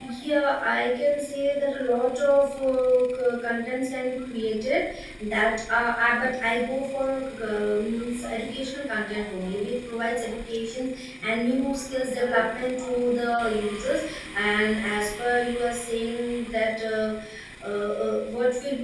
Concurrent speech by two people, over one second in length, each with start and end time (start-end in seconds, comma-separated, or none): none